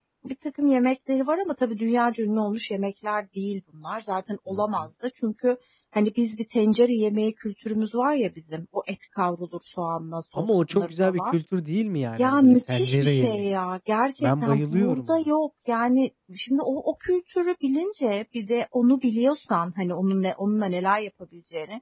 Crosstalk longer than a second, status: present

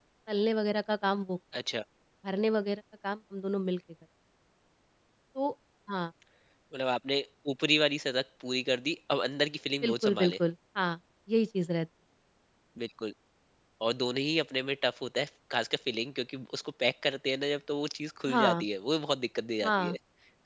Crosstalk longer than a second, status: none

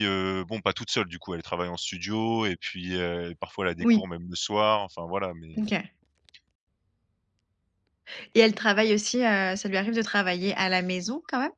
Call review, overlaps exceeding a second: none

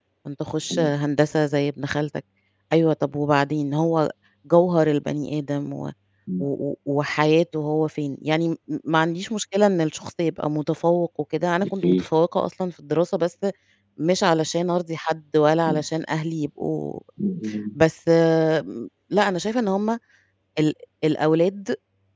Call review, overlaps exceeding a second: none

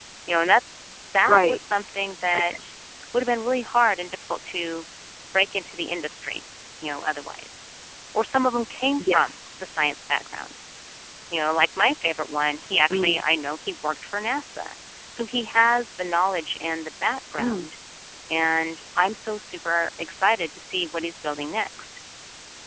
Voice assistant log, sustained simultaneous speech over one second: none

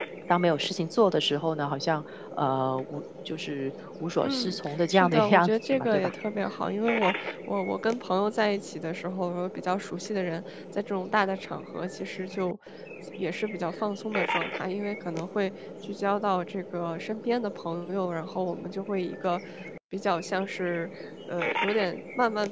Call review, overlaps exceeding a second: present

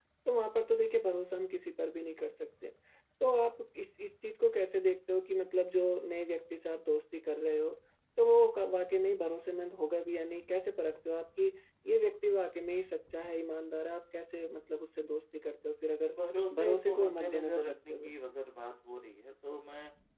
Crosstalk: present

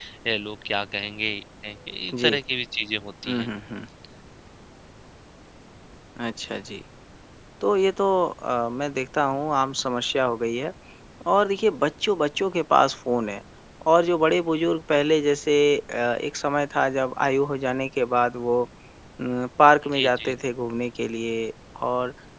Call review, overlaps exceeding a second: none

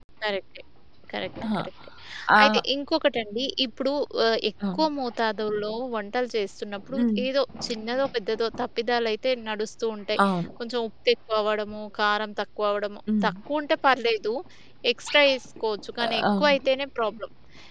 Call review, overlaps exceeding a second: none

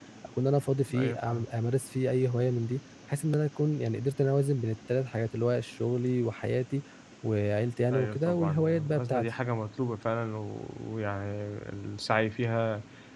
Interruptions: present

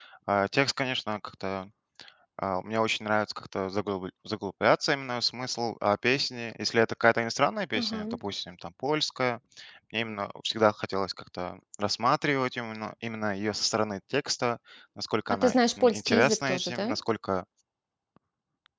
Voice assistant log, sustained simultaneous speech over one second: present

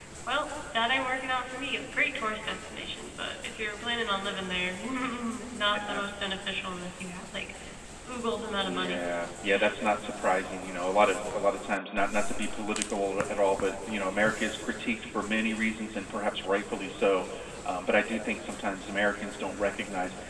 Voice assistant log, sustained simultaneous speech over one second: none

